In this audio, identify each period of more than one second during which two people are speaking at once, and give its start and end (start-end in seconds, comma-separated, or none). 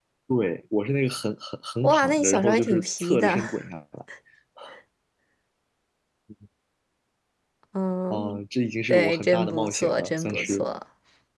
1.8-3.4, 8.9-10.7